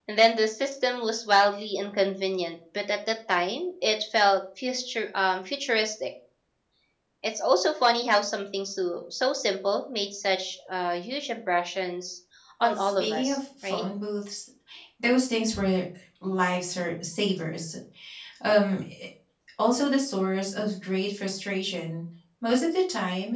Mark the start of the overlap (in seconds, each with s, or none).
12.6 s